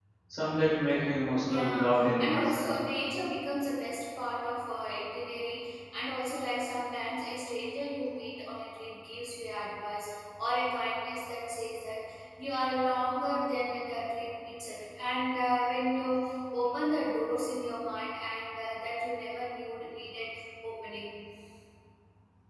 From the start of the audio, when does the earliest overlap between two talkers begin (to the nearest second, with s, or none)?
1 s